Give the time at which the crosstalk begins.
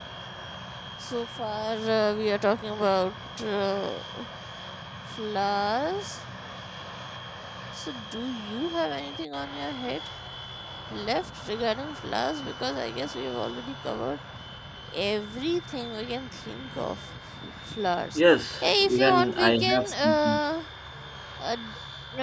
18.6 s

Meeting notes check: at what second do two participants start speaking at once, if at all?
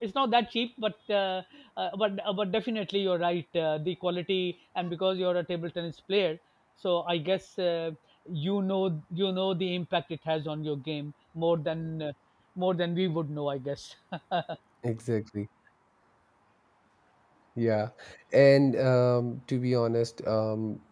none

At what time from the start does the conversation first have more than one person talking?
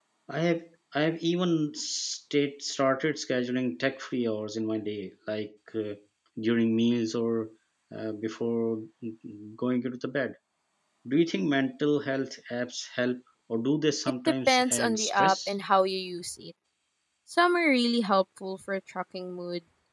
14.3 s

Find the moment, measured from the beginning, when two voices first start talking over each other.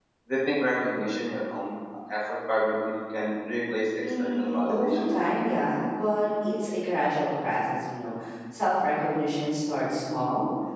4.0 s

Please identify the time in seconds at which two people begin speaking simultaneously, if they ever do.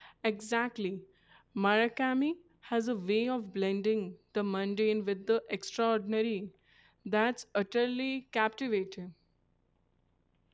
none

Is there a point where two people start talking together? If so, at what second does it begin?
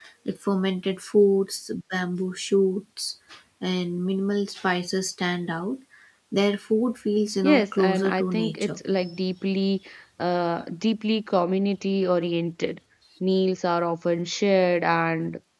7.4 s

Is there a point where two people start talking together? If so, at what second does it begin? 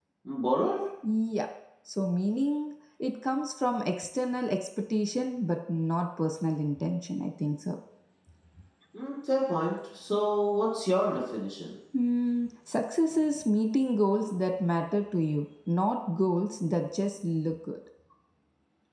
none

